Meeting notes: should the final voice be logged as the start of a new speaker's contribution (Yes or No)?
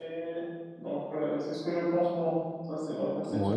Yes